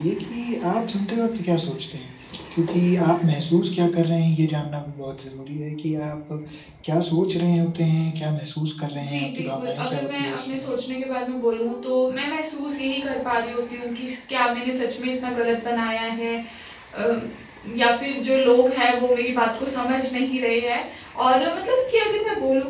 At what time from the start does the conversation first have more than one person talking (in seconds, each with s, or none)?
8.9 s